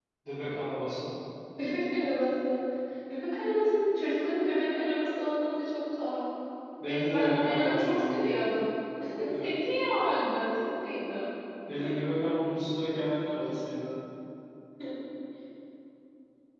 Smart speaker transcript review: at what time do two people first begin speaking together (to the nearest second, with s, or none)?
7 s